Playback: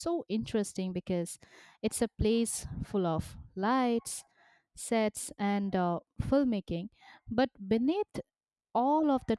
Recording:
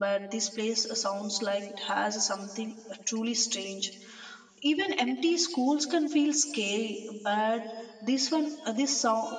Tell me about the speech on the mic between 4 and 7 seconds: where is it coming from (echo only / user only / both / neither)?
user only